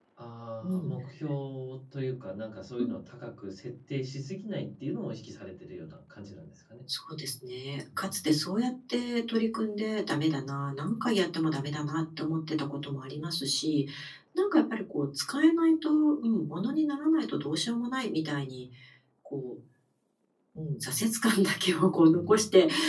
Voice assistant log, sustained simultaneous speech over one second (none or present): none